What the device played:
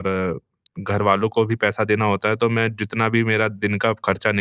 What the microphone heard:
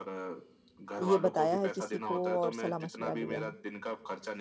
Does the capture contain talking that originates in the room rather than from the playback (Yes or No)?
Yes